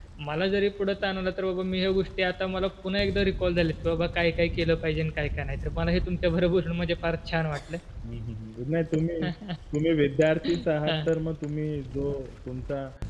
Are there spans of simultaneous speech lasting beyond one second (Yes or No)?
No